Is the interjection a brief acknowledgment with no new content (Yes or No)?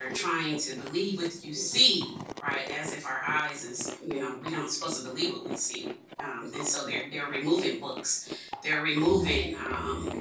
Yes